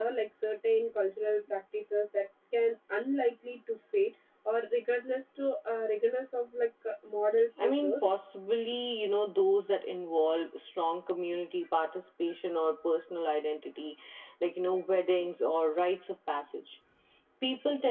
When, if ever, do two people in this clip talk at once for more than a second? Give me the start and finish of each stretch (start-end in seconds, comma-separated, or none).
none